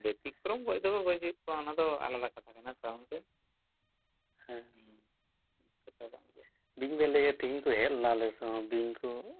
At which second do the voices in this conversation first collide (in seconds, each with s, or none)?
none